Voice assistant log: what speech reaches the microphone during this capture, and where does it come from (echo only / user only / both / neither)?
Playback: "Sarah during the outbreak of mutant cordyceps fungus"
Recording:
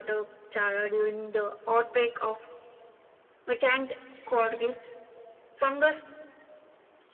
echo only